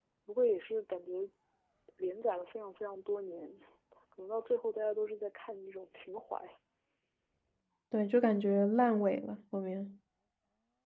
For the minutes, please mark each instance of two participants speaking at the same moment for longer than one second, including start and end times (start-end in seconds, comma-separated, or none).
none